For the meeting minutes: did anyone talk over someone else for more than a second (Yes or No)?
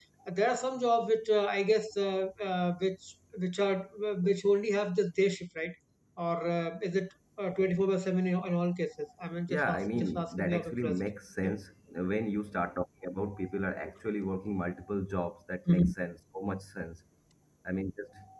Yes